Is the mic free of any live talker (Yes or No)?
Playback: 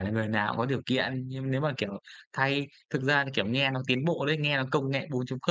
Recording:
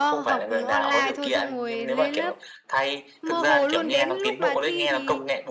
No